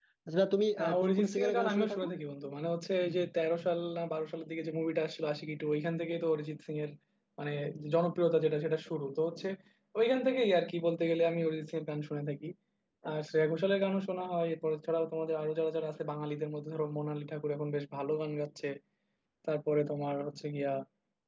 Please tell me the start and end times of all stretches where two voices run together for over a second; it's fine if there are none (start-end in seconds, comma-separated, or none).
0.8-2.1